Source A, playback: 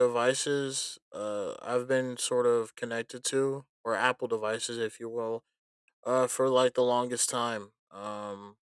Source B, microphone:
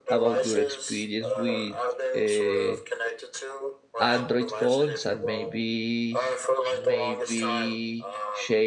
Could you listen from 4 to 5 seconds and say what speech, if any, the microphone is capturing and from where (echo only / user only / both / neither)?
both